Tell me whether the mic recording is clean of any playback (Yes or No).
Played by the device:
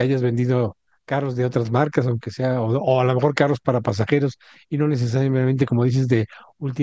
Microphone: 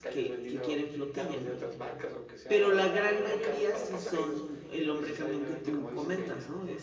No